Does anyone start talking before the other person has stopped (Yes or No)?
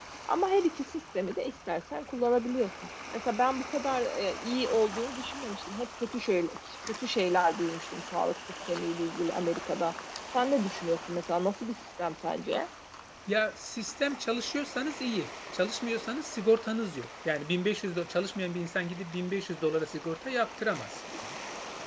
No